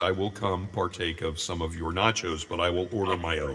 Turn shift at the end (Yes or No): Yes